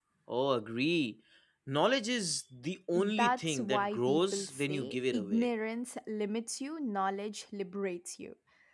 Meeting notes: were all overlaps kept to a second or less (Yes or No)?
No